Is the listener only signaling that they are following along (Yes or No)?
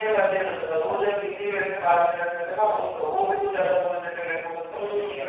No